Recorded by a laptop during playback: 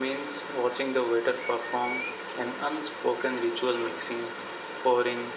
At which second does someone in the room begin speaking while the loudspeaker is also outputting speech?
none

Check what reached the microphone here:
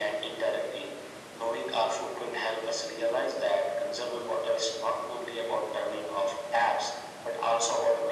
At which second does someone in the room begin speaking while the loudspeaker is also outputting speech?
none

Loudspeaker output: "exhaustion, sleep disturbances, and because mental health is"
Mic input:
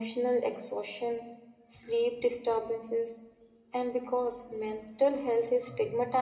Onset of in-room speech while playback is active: none

